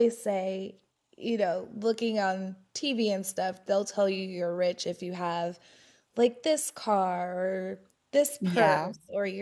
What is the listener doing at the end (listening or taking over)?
listening